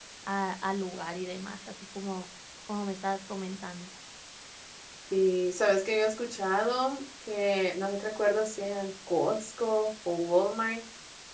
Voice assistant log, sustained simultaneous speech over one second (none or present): none